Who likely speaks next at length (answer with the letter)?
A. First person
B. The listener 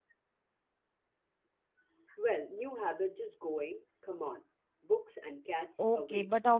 B